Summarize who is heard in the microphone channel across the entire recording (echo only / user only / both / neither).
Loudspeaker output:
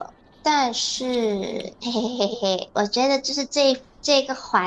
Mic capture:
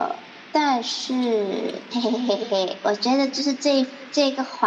echo only